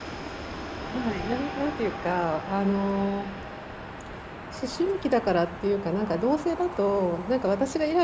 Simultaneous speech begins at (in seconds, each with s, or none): none